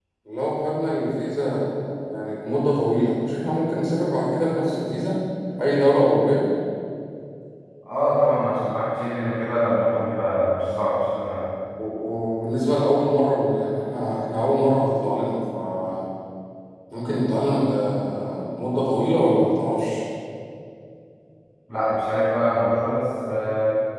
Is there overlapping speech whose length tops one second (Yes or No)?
No